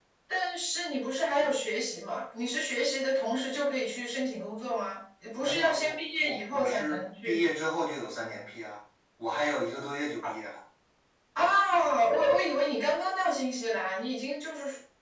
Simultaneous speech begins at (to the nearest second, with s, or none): 5 s